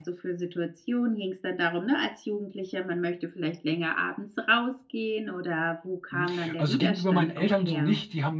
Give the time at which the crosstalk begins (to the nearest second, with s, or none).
6 s